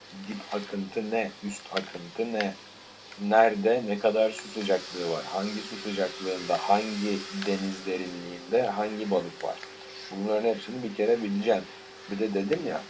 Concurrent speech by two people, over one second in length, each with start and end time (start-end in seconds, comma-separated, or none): none